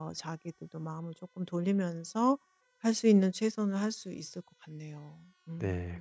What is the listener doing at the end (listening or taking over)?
taking over